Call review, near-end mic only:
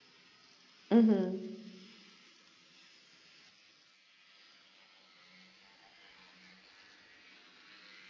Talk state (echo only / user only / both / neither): user only